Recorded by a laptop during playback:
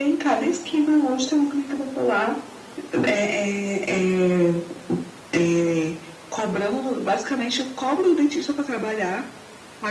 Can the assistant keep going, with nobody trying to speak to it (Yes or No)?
Yes